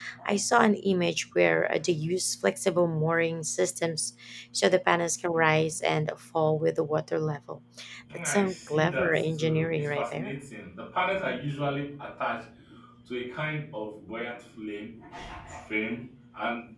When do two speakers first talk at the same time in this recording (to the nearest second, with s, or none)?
8 s